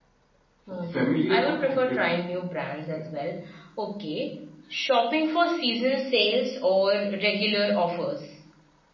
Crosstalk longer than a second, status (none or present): present